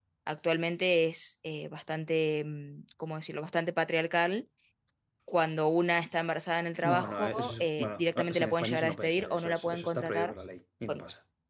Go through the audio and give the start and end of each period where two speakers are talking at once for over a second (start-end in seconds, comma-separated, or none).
6.8-10.3